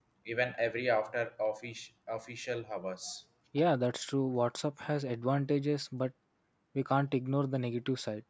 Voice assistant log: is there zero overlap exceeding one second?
Yes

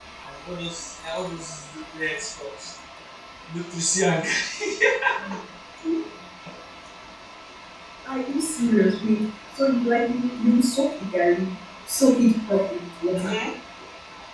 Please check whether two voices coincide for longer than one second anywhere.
No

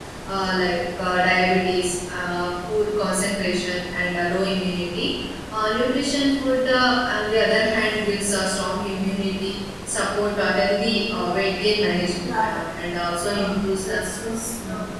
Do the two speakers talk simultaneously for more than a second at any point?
No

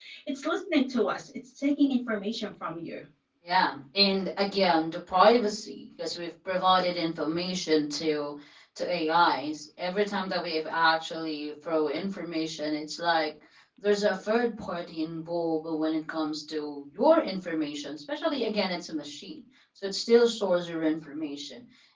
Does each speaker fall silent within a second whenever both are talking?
Yes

